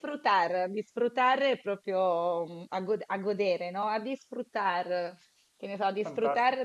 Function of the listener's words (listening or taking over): listening